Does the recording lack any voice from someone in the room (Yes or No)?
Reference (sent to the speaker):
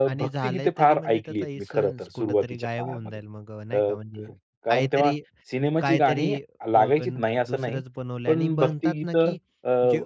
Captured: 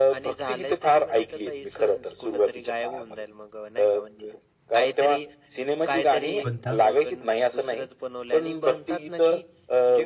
No